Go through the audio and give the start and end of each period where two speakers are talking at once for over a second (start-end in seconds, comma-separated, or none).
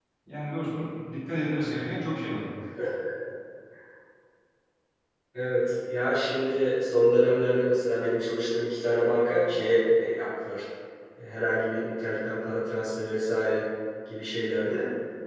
none